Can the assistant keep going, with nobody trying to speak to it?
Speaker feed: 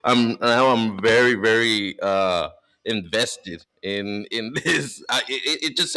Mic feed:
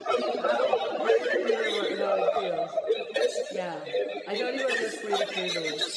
No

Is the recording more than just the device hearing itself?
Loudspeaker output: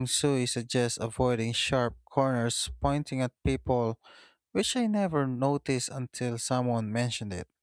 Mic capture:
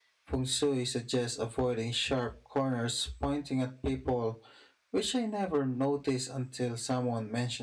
No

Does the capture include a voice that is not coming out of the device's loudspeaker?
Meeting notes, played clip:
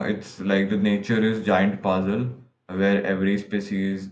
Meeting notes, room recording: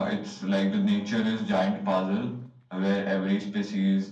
No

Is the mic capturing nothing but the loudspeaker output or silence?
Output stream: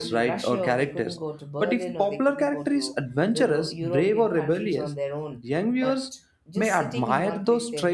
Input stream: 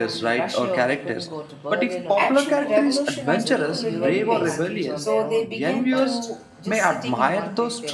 No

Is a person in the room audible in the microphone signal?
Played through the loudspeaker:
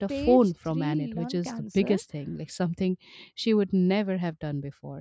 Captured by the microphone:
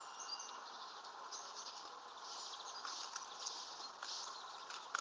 No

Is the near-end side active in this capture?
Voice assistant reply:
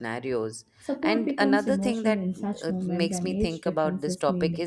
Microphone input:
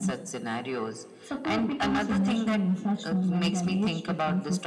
No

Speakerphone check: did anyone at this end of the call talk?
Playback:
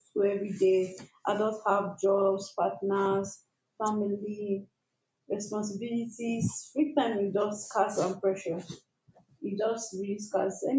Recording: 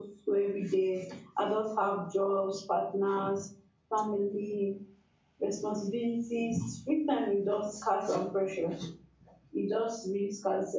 No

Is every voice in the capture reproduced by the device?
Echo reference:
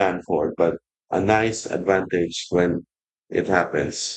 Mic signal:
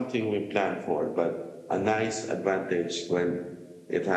Yes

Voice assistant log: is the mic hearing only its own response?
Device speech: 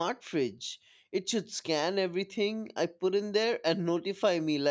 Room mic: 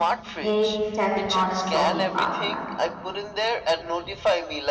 No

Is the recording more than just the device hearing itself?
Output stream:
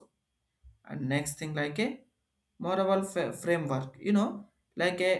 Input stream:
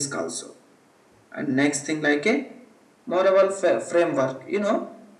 No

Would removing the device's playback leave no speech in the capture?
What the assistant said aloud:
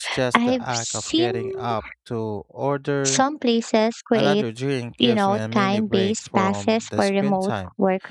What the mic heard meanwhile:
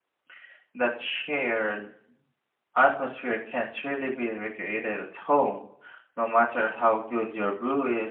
No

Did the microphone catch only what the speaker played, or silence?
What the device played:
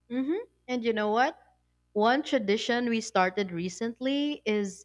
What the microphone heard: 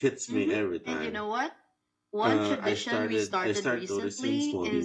No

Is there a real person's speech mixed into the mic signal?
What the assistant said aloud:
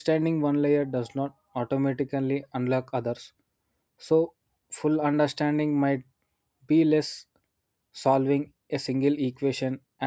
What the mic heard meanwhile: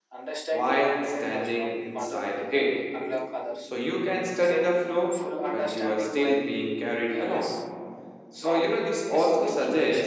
Yes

